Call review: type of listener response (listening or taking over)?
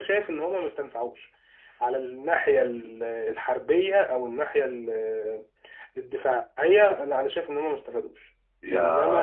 taking over